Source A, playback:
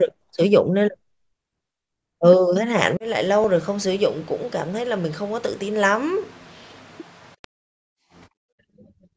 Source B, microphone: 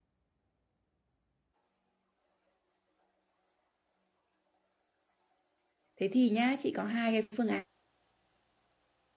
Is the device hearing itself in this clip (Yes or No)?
No